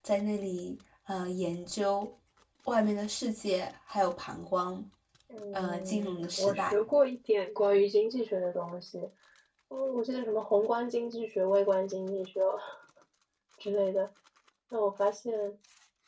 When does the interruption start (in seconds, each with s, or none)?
5.5 s